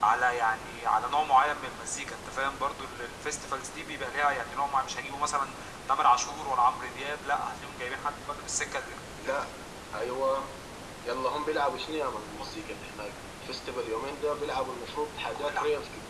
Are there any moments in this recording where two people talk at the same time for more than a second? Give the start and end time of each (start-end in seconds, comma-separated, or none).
none